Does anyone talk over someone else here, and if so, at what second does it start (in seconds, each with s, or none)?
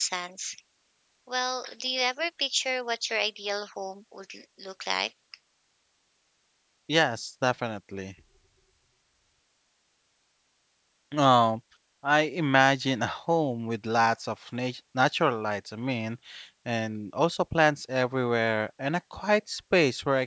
none